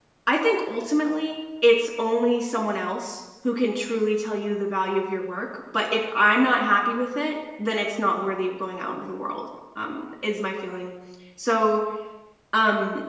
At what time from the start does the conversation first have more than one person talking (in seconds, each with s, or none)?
none